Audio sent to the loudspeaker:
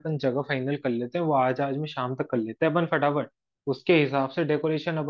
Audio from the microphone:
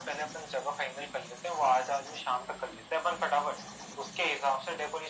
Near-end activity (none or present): none